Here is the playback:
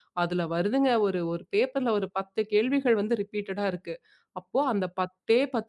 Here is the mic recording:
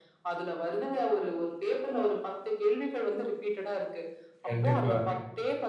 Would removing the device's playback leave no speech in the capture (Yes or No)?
No